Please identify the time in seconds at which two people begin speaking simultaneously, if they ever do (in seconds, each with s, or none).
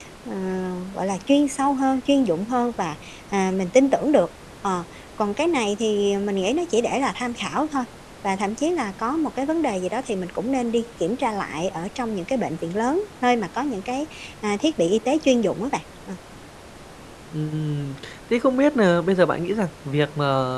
none